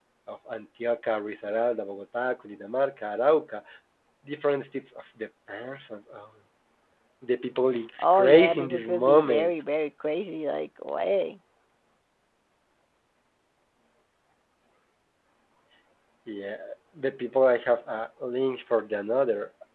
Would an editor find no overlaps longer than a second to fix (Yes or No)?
No